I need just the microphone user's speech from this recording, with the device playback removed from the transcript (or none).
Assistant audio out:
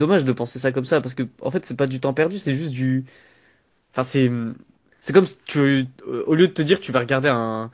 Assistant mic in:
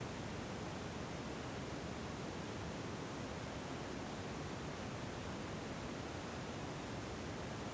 none